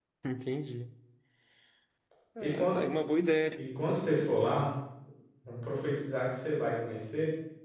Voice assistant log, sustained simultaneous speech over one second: none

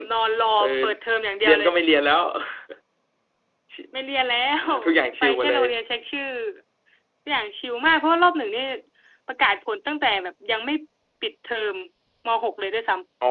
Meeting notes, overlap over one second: none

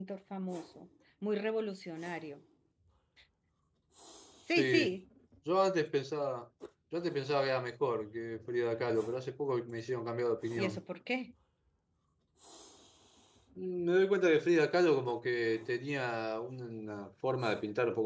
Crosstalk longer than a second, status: none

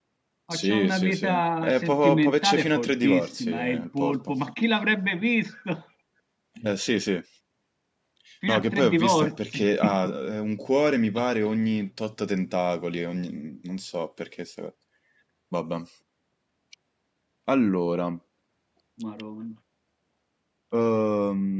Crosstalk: present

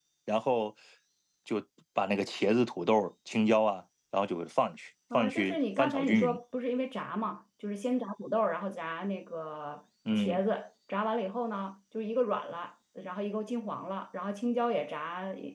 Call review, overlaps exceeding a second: present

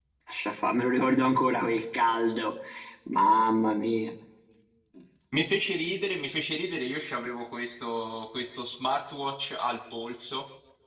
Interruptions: none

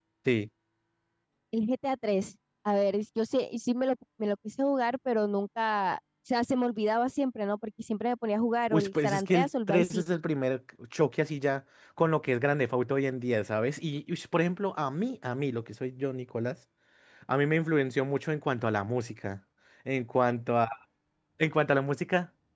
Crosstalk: present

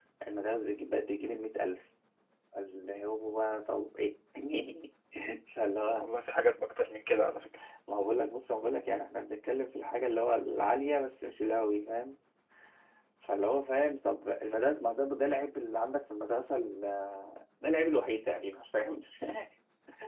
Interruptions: none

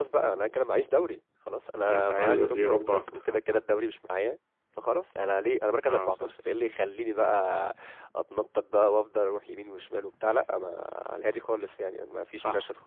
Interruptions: present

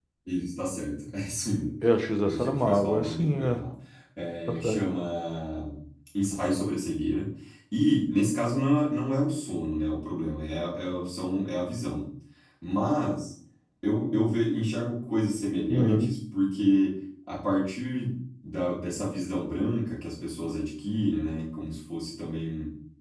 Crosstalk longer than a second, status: present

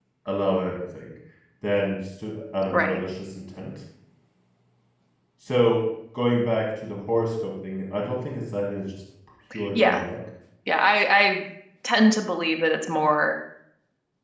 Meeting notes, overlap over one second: none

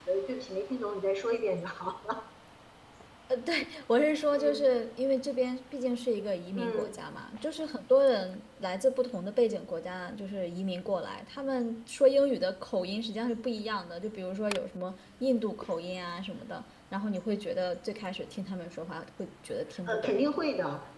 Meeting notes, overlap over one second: none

